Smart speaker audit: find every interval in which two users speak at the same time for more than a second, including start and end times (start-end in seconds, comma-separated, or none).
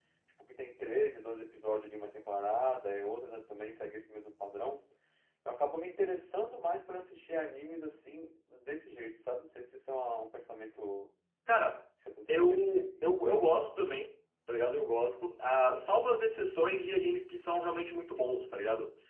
12.3-13.5